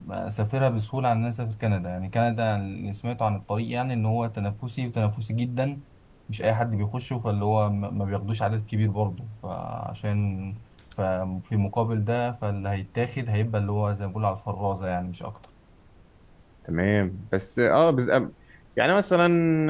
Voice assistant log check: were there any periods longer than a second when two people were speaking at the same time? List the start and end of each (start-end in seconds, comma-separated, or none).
none